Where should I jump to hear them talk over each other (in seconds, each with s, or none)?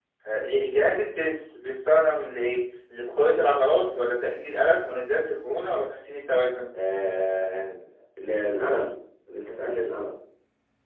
none